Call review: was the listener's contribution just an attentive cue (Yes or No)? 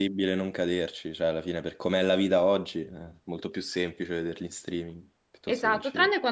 No